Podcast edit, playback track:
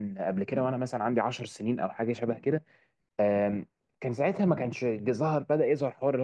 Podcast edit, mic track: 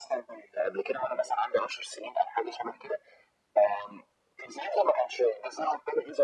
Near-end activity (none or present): none